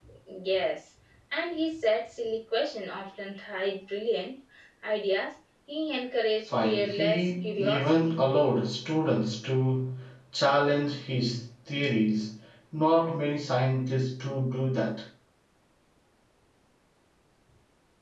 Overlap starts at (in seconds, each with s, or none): 6.5 s